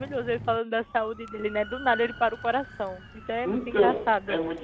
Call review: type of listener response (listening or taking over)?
taking over